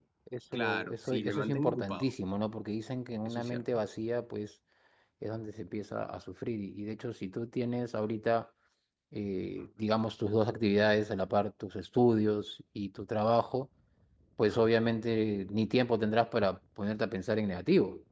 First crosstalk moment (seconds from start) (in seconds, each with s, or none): 0.5 s